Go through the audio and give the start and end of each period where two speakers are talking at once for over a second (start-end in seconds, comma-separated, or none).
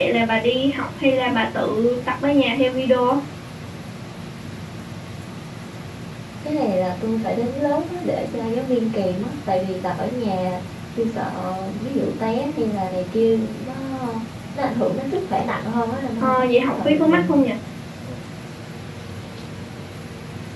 16.2-17.4